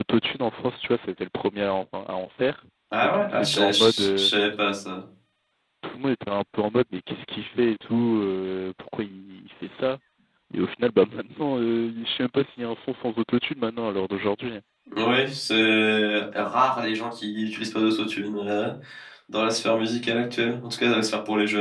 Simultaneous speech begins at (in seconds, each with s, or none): 2.9 s